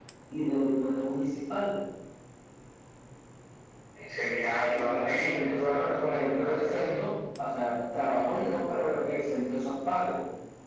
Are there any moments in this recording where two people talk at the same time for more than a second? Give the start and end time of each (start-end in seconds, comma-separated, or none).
4.6-7.0